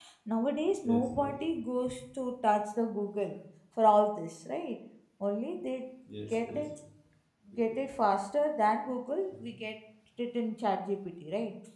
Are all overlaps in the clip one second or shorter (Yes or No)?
Yes